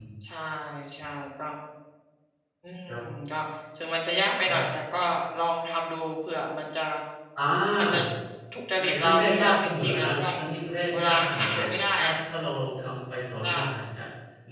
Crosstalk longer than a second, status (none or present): present